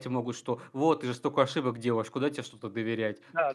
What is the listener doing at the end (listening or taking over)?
taking over